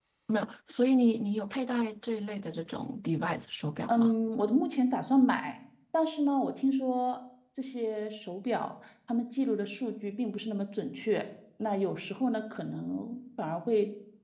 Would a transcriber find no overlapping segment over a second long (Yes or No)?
Yes